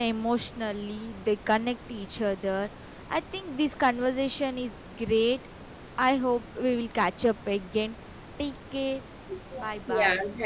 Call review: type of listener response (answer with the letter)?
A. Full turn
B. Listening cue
A